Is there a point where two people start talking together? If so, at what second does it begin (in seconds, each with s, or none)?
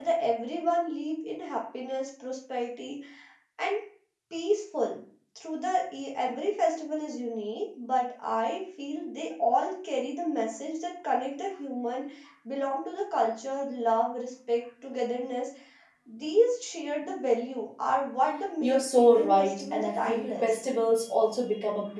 18.6 s